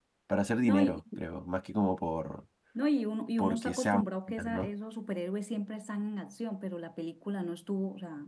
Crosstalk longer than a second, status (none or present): present